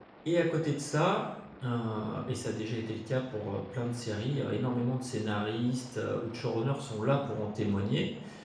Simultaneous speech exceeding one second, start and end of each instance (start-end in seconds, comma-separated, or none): none